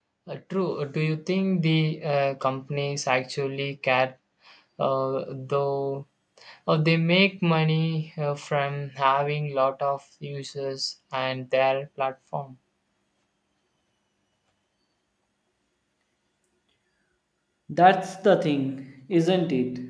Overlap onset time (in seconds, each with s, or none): none